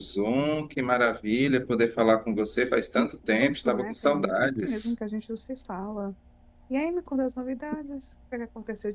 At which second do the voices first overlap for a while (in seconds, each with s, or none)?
3.4 s